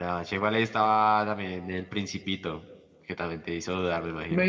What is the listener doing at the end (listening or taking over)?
taking over